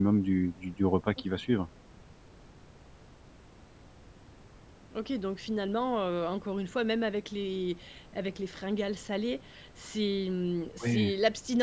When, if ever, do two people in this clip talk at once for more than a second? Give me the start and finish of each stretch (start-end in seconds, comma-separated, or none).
none